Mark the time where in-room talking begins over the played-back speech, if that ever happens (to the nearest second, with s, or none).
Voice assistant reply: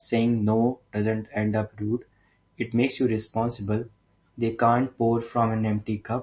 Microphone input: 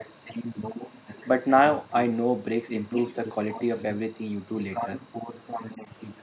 1 s